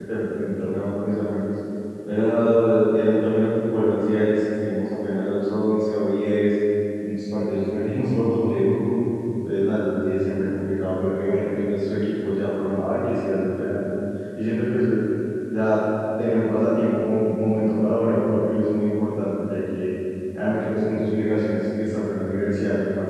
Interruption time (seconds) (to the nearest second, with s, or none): none